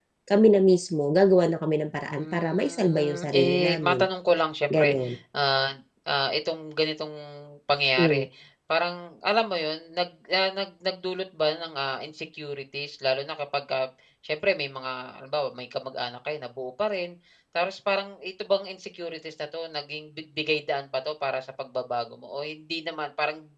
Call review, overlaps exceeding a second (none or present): present